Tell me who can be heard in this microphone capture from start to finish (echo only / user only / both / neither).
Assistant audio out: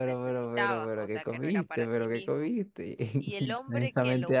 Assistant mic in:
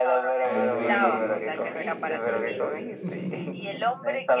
both